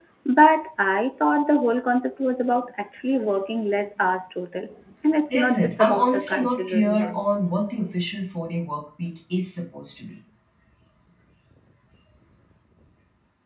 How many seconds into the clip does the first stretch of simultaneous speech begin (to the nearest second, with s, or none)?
5 s